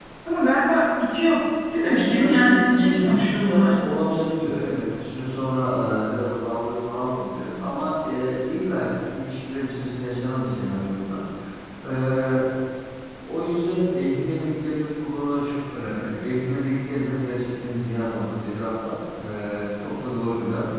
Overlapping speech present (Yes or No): Yes